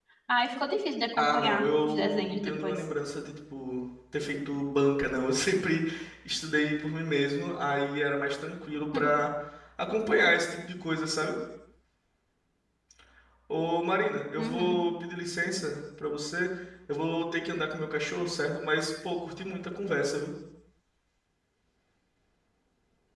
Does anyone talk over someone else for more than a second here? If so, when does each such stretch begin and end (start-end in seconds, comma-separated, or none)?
1.2-2.8